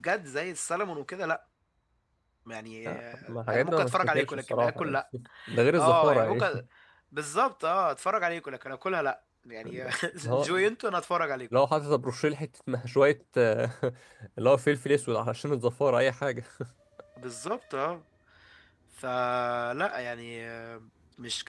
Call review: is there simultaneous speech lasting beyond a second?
Yes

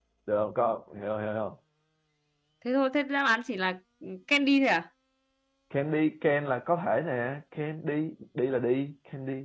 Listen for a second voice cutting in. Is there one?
No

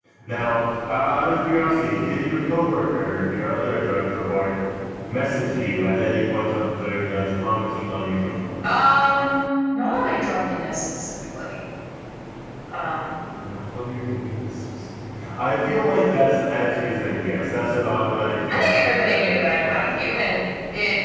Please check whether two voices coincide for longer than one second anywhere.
Yes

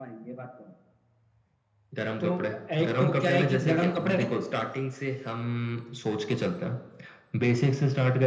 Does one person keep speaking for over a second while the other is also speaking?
Yes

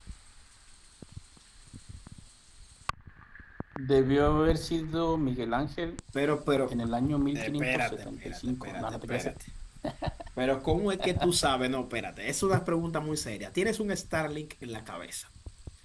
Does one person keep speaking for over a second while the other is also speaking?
Yes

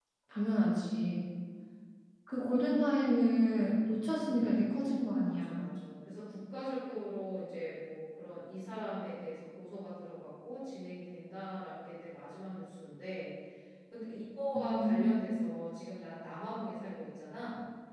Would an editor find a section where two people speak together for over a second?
No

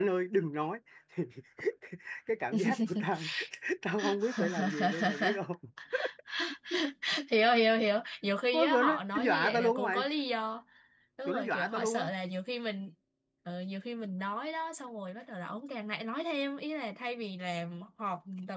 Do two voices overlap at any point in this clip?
Yes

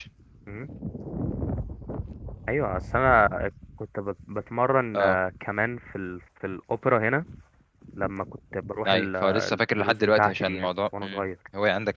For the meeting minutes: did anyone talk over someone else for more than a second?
Yes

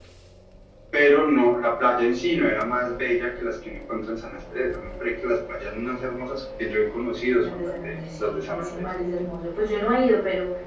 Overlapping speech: Yes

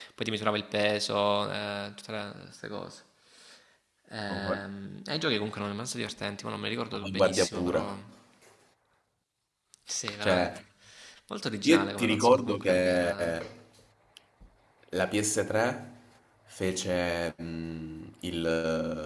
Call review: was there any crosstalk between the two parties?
Yes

